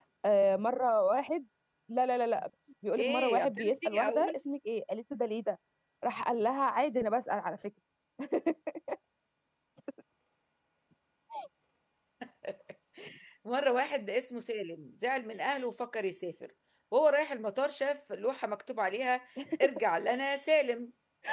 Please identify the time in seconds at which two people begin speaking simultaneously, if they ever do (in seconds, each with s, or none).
3.0 s